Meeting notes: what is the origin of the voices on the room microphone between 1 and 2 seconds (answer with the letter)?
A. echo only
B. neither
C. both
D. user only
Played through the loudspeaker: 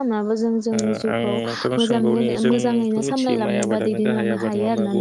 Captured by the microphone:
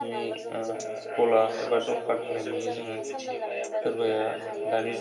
C